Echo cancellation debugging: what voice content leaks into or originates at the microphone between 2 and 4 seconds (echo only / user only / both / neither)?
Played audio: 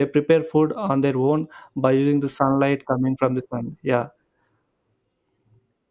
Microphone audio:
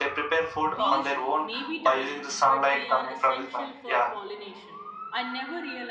both